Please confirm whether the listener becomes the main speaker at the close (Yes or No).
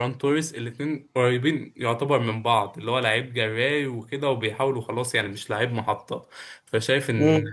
No